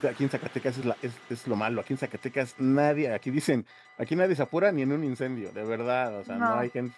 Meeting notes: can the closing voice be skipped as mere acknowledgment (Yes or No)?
Yes